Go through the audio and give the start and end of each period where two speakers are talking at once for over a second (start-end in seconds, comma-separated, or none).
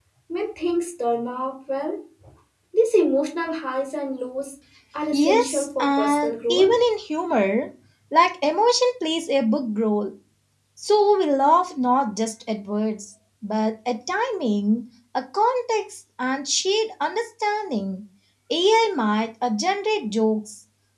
5.1-6.7